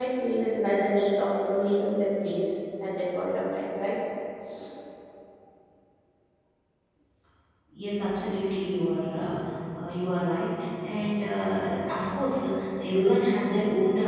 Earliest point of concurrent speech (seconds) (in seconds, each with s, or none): none